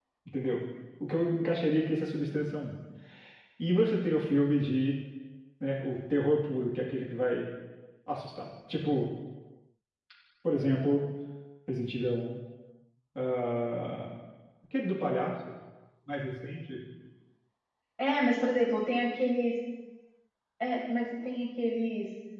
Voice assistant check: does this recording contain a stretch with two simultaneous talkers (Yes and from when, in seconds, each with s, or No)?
No